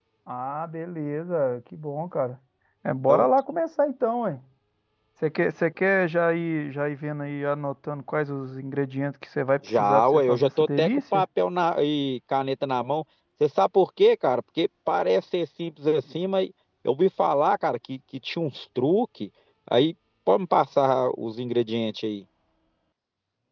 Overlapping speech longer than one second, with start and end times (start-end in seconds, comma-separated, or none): 9.7-11.2